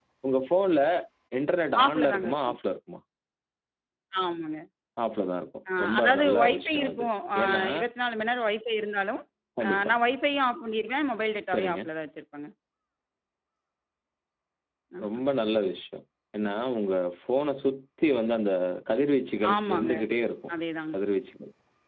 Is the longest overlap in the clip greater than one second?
Yes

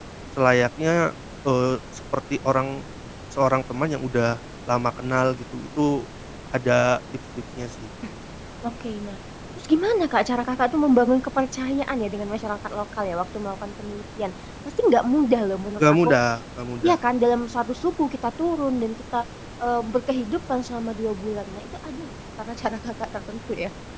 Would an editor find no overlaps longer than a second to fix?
Yes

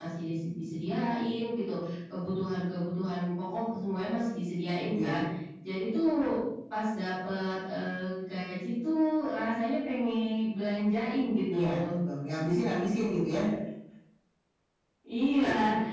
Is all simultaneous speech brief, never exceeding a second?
Yes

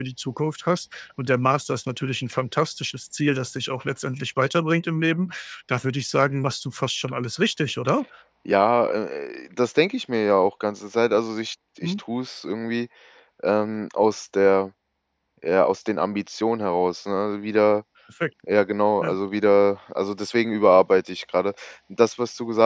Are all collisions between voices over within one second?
Yes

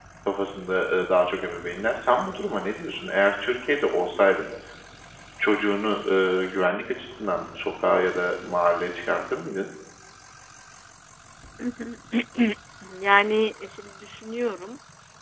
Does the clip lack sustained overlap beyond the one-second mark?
Yes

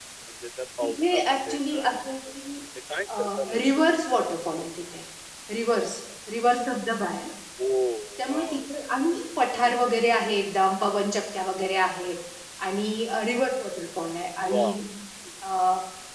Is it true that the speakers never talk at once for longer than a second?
No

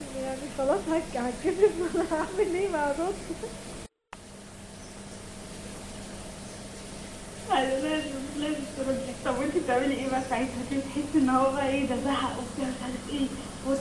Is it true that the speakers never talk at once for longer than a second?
Yes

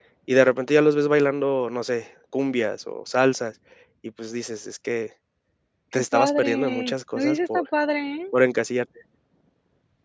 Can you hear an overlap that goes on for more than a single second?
Yes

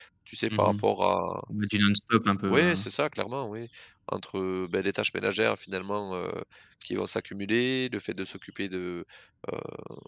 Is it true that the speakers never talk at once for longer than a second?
Yes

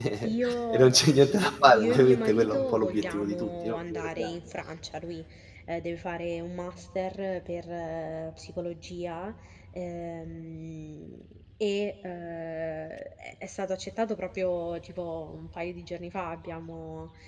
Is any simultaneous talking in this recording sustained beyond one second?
Yes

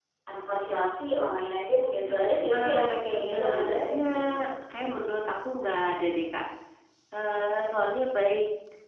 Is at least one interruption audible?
Yes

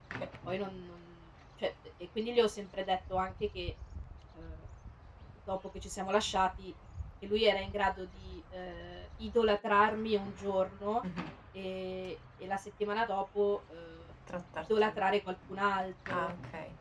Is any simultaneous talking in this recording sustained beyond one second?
No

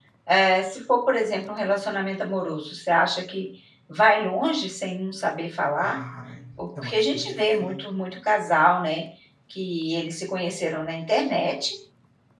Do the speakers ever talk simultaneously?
Yes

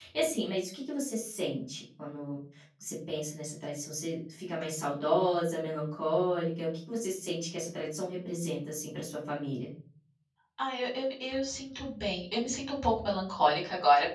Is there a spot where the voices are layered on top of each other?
No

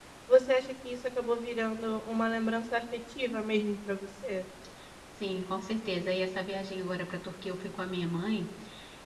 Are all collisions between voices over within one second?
Yes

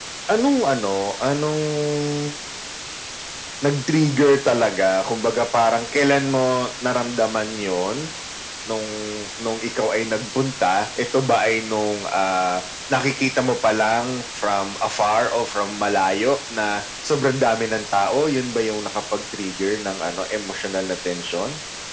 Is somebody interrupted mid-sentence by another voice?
No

